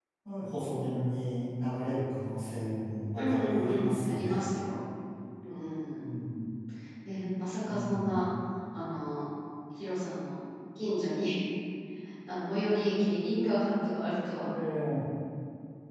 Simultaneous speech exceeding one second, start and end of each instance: 3.2-4.5

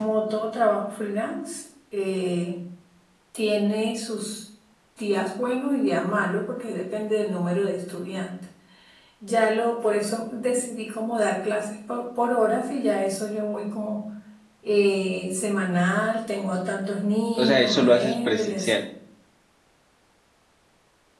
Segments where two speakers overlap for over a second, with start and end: 17.4-18.8

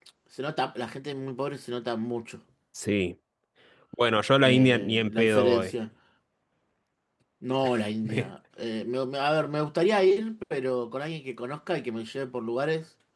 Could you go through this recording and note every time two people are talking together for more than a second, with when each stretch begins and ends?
4.4-5.8

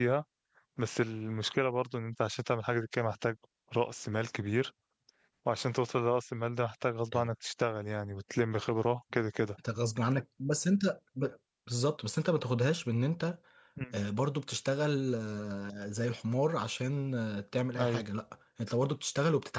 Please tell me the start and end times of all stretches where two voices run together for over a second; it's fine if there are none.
none

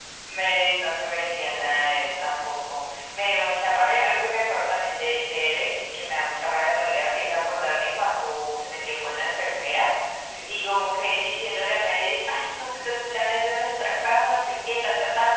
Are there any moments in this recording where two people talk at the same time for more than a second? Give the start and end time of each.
1.3-2.5

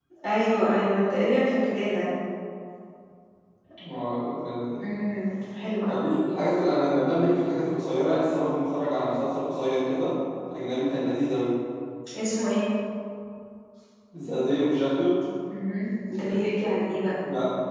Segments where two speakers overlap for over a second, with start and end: none

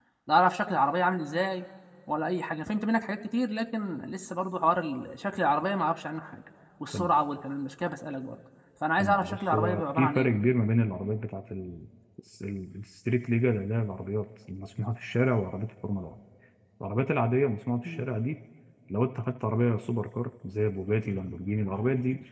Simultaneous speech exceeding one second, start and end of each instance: 9.0-10.4

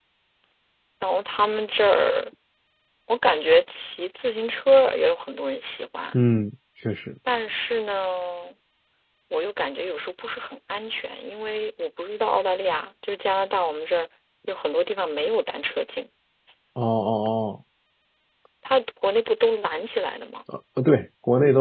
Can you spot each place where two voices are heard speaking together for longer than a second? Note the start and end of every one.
none

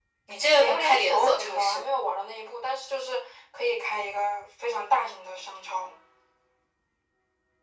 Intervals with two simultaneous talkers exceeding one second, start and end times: 0.6-1.9

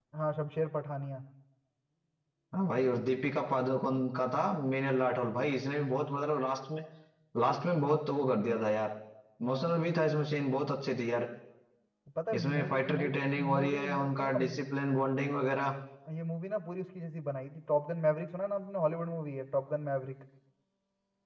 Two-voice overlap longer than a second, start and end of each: 12.4-14.4

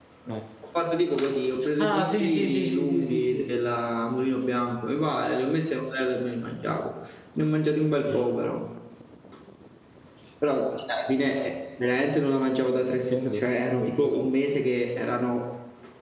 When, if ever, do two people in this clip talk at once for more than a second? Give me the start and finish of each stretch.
1.8-3.4

